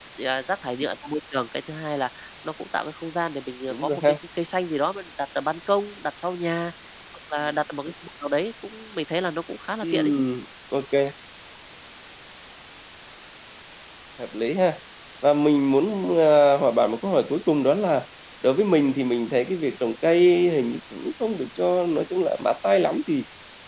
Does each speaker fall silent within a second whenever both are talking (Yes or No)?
Yes